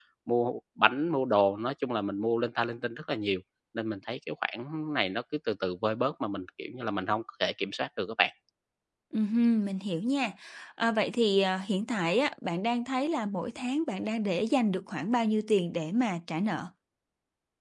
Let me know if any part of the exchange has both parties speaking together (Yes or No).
No